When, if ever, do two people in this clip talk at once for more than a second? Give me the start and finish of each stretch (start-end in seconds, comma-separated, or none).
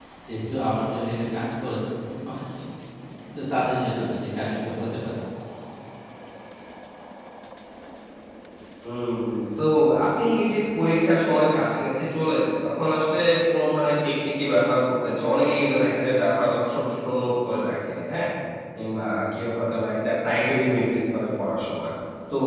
none